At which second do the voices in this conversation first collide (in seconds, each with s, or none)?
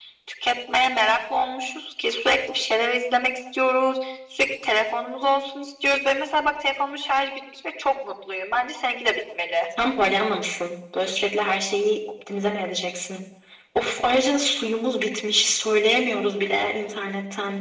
none